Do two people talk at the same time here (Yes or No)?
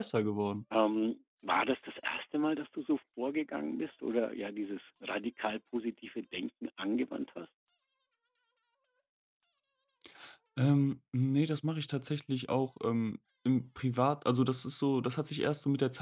No